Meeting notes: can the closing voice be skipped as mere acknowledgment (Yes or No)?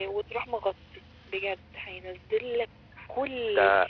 No